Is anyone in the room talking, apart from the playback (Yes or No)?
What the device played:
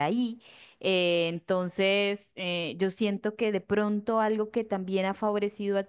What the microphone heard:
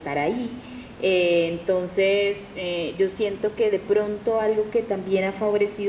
No